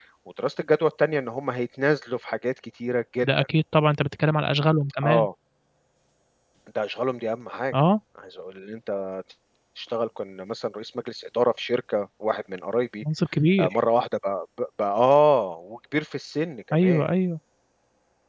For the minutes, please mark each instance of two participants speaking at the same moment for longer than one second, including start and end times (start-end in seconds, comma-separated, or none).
none